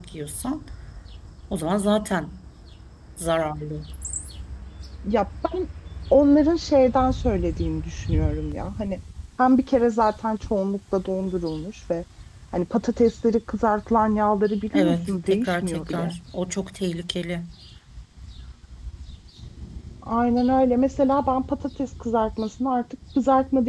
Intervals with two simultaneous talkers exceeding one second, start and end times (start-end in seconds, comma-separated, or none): 14.7-16.1